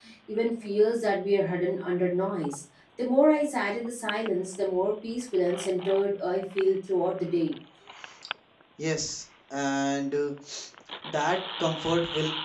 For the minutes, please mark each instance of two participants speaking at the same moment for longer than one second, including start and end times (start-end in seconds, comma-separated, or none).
none